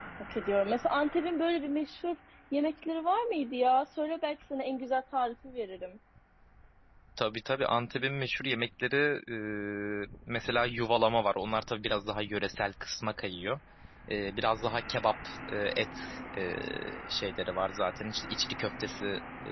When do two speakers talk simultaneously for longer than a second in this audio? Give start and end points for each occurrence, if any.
none

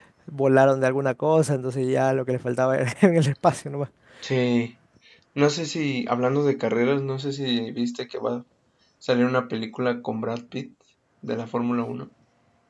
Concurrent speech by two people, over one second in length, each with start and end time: none

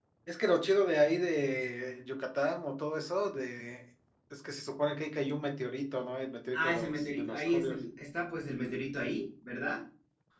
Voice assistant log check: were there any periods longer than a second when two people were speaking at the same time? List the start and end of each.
6.5-7.8

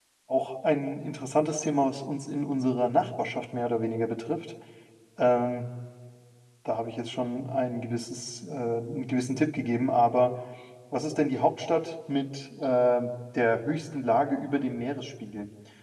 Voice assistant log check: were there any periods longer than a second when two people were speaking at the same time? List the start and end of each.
none

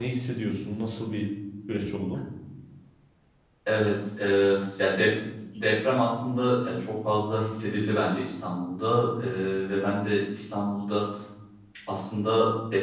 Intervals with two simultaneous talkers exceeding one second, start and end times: none

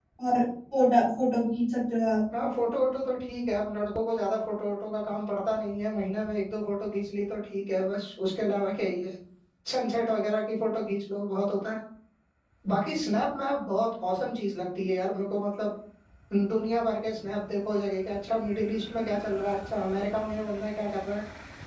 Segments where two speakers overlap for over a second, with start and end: none

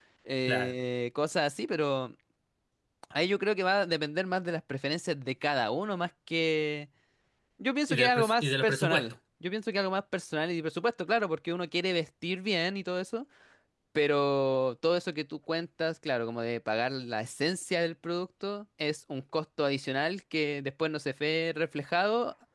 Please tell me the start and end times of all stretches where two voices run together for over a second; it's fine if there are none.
7.9-9.1

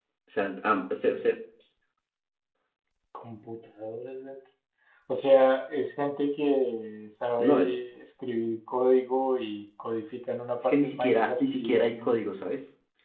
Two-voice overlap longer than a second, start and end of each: 10.6-12.3

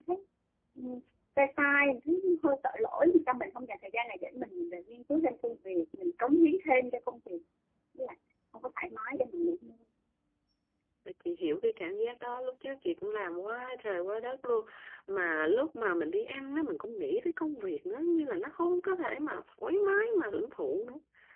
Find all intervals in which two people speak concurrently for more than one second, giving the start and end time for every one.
none

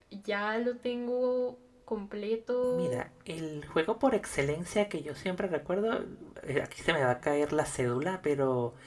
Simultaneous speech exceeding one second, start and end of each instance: none

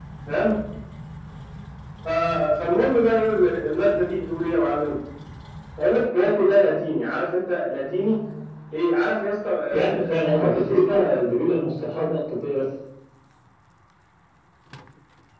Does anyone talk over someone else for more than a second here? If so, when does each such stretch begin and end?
9.7-11.1

